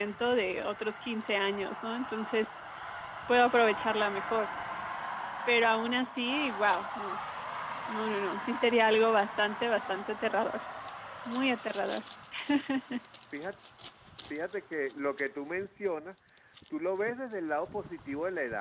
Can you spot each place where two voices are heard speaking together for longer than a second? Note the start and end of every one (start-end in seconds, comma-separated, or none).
none